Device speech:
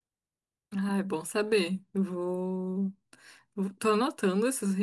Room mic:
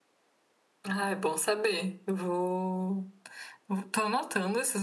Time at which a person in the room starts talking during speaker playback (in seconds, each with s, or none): none